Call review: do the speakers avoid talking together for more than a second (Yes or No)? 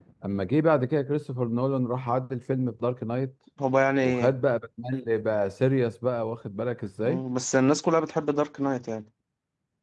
Yes